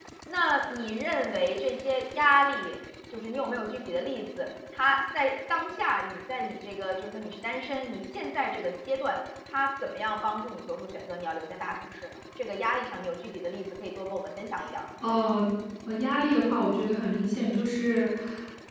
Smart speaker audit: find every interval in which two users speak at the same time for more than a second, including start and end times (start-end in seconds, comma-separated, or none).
none